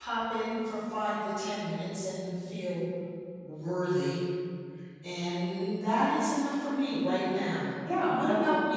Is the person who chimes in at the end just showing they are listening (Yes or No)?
No